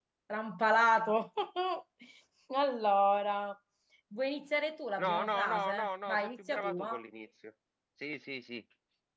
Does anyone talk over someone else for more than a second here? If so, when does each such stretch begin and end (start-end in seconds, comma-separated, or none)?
5.0-7.0